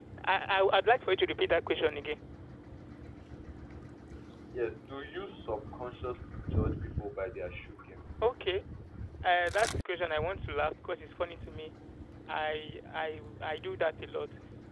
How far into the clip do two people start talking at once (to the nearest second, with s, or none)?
none